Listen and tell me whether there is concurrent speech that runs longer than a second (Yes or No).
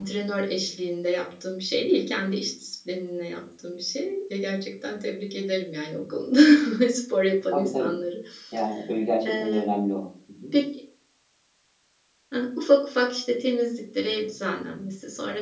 No